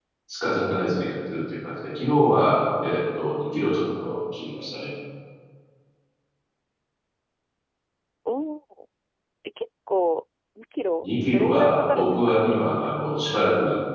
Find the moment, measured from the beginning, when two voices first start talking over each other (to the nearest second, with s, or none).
11 s